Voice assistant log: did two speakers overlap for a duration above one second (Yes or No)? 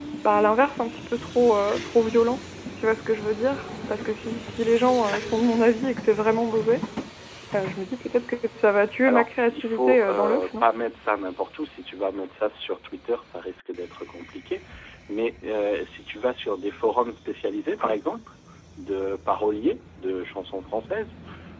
Yes